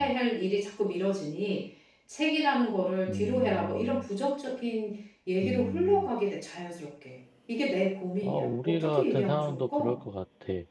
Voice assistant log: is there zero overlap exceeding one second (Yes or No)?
No